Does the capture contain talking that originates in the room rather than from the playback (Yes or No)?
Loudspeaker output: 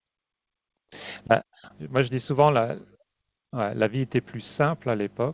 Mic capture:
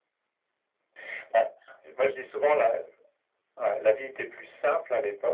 No